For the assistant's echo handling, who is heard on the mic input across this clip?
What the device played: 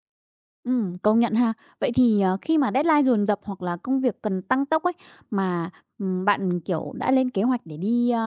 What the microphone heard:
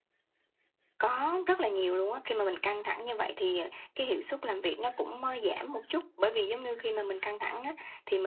user only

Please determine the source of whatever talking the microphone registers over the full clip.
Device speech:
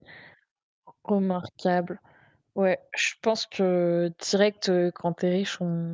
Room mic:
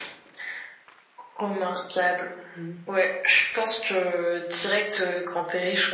both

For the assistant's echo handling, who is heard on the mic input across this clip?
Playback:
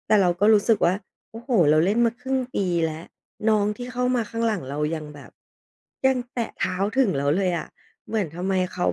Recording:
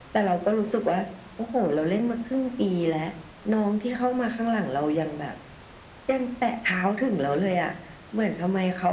echo only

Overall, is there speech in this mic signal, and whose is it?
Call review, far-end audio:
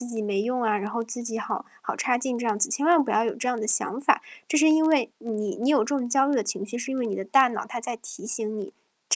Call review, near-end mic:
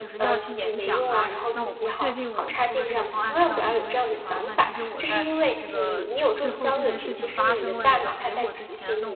both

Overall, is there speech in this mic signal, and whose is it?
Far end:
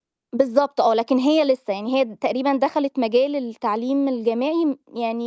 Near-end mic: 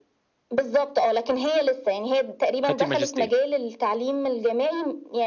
both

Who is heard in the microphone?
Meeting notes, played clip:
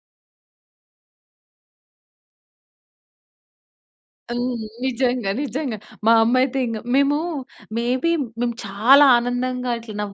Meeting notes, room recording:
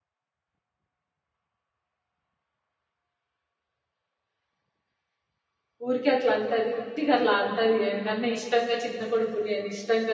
user only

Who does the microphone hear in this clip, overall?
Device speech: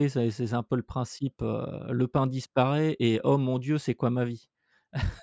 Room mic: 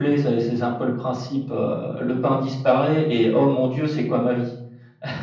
echo only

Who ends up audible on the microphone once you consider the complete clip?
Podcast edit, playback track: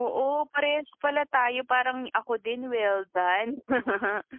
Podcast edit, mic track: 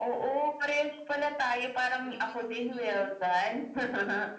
both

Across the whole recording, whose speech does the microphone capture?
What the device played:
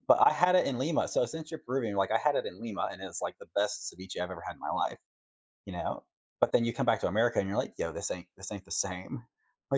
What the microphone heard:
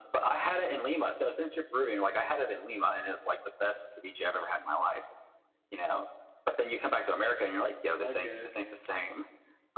both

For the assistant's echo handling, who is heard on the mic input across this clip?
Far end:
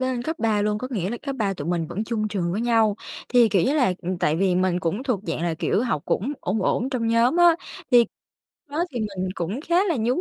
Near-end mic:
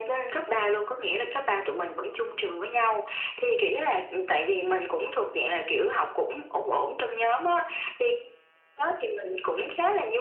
echo only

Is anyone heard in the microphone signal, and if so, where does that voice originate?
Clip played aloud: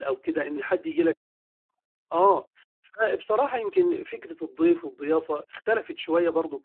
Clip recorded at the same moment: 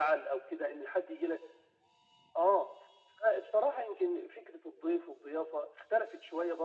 echo only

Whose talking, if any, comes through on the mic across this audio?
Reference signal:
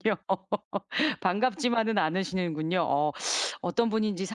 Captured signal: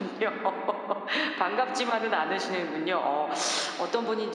echo only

